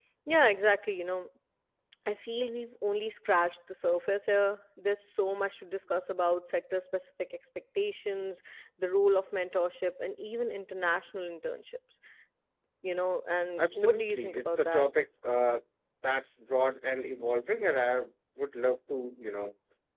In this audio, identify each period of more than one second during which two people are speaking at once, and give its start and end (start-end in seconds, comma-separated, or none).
13.6-14.8